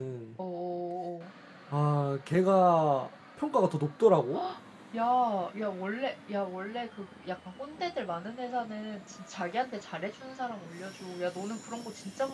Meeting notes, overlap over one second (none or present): none